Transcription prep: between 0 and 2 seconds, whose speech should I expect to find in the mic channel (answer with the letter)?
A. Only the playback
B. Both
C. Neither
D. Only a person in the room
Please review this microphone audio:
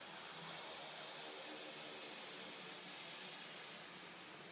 C